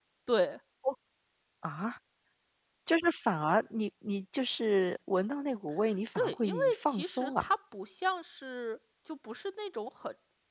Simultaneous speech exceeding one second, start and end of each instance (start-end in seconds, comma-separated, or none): 6.2-7.5